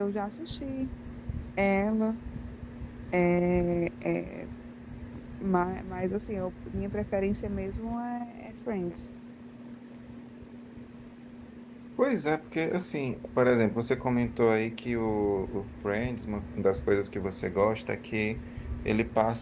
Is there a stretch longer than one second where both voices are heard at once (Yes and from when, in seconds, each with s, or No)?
No